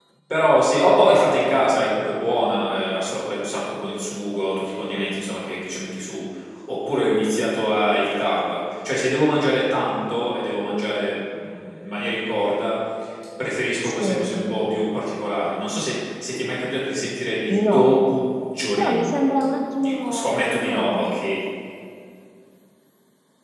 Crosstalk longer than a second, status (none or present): present